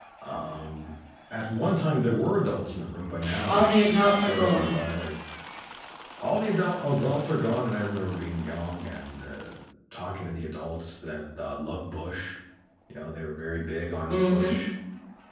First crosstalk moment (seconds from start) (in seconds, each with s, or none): 3.5 s